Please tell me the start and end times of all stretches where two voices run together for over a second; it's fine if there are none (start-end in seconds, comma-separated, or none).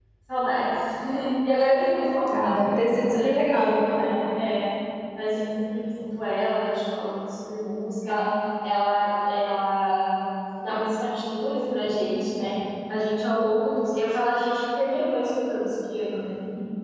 2.4-3.8